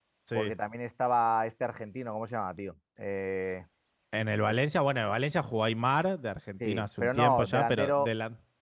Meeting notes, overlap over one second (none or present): present